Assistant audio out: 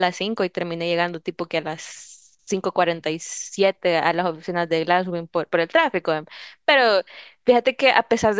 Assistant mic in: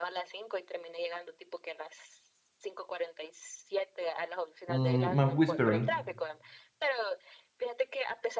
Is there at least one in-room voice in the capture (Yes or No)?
Yes